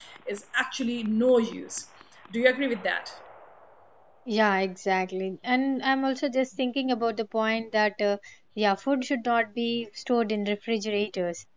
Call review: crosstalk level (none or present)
none